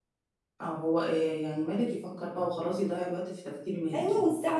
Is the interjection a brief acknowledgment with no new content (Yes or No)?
No